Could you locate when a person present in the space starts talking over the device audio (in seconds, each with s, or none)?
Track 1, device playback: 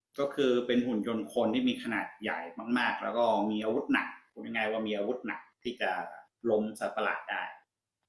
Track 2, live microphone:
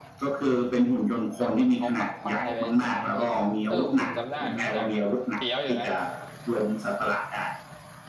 1.3 s